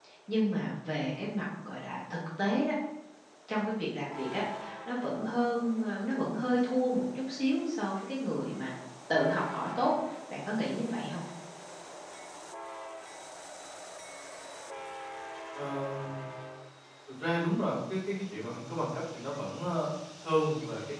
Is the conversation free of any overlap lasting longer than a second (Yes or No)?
Yes